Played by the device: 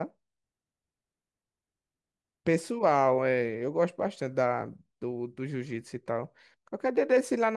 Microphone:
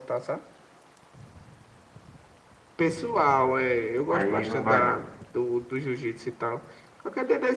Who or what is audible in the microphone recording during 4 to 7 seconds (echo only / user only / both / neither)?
both